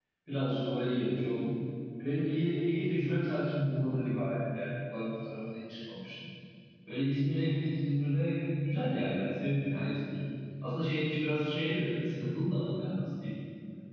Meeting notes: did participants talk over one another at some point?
No

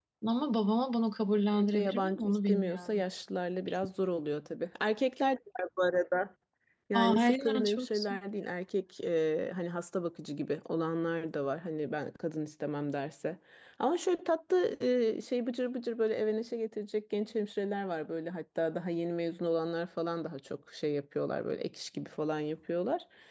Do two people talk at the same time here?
Yes, from 1.5 s

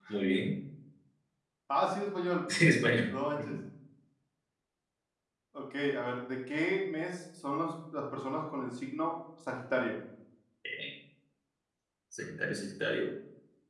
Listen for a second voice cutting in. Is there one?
No

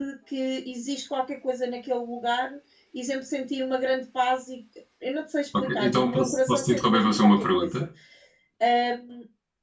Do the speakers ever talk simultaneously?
Yes, from 5.6 s

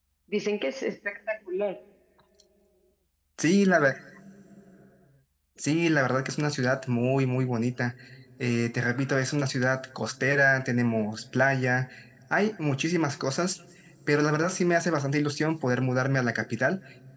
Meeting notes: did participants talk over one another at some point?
No

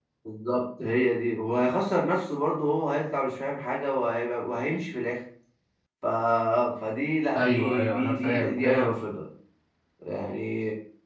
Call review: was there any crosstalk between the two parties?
Yes, from 7.4 s

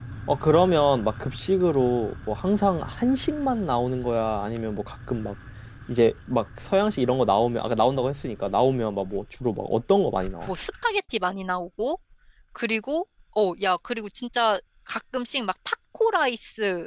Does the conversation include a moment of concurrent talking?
No

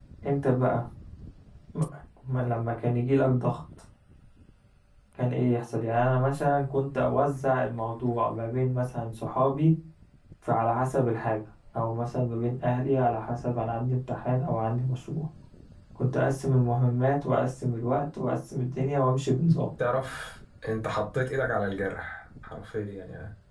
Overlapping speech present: No

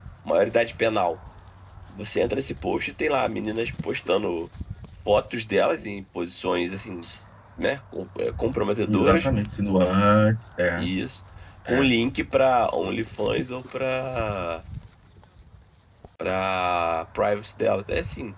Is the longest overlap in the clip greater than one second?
No

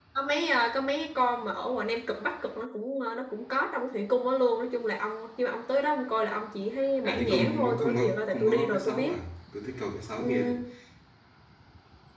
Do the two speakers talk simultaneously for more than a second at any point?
Yes, from 7.1 s

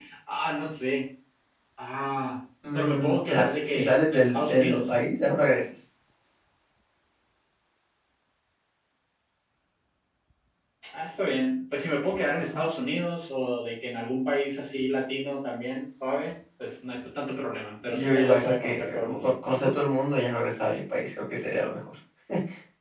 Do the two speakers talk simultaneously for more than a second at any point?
Yes, from 2.7 s

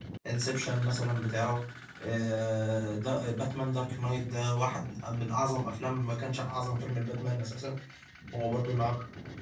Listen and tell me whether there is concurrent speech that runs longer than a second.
No

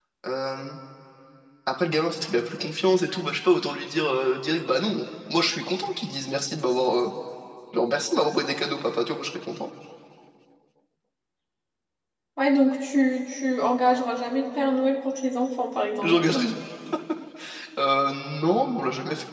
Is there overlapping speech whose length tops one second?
No

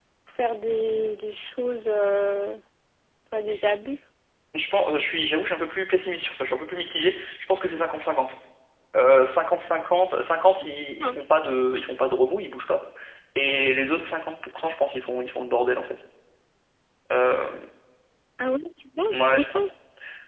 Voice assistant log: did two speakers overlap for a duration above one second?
No

